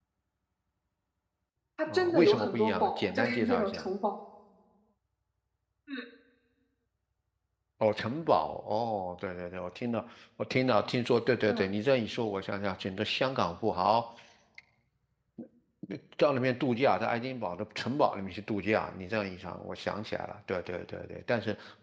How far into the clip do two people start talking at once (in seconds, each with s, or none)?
1.9 s